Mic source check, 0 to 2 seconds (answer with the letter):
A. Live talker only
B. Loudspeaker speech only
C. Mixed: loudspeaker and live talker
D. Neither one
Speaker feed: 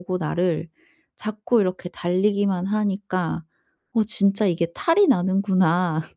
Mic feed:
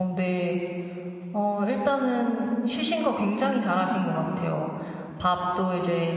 A